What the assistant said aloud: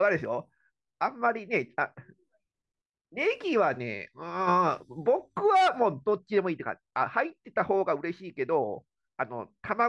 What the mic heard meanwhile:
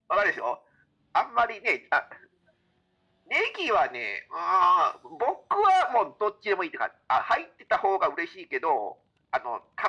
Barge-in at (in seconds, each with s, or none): none